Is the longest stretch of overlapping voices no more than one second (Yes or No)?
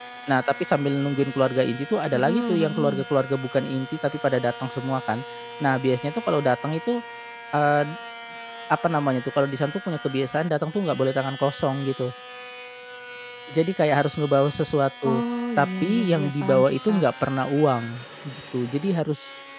No